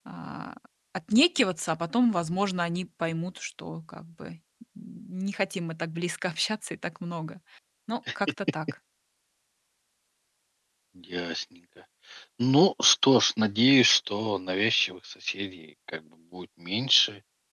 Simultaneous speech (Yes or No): No